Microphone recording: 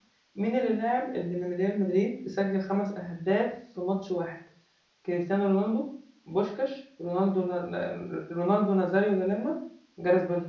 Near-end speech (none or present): present